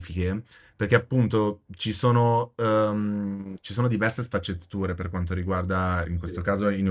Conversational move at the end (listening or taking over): listening